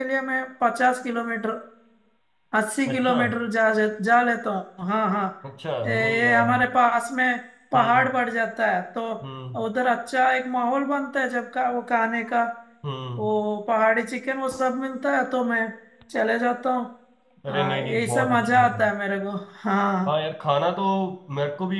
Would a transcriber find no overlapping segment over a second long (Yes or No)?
No